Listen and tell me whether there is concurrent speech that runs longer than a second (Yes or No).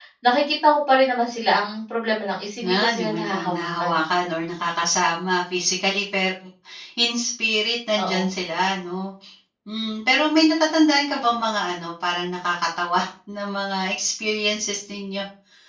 Yes